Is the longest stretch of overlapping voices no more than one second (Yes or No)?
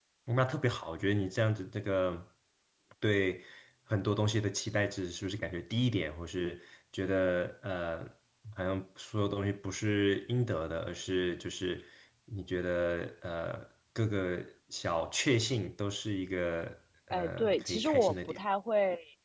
No